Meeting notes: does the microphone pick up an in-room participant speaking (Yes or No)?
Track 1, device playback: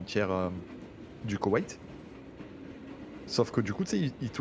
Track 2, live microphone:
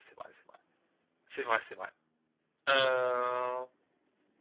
Yes